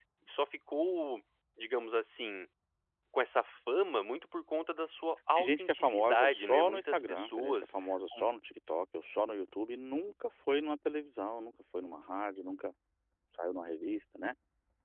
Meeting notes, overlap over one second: present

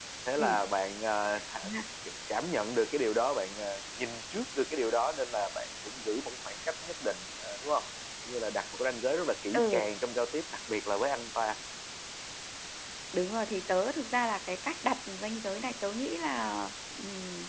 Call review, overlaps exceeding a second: none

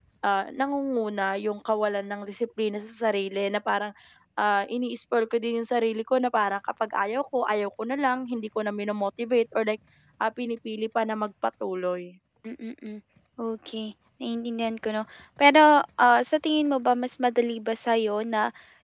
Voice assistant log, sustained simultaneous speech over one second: none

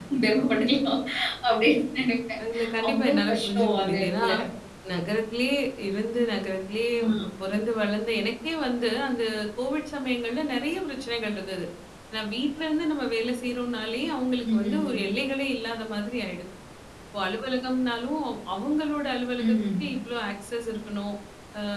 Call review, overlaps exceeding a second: present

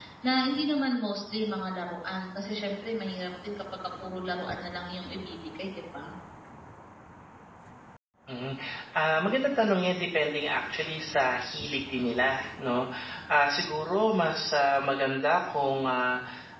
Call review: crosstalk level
none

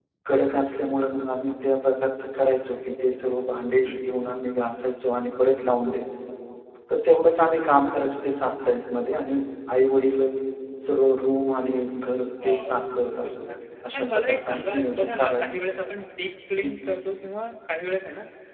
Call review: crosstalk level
present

